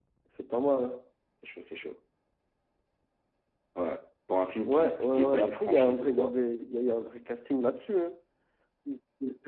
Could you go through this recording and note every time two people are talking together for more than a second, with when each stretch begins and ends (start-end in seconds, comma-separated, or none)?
4.7-6.3